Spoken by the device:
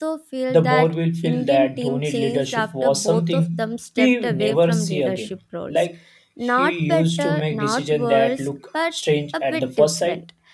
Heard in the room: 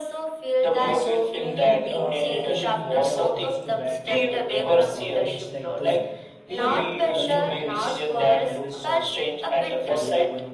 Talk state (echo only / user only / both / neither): both